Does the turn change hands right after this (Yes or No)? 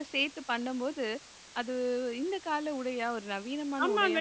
Yes